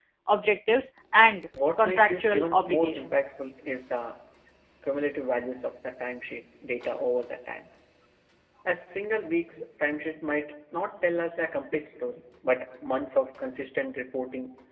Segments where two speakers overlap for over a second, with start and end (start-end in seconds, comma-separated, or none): 1.8-3.2